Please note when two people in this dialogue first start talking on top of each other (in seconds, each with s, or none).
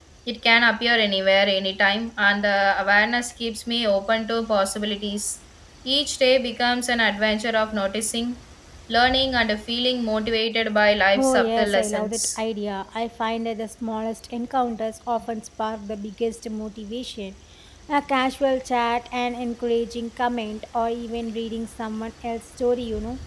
11.2 s